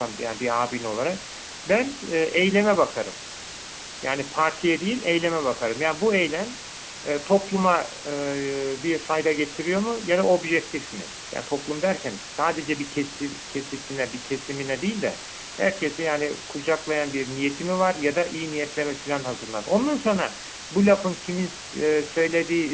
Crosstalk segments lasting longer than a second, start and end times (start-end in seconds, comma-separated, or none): none